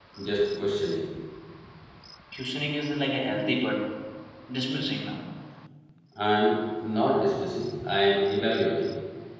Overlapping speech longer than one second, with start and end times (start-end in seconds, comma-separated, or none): none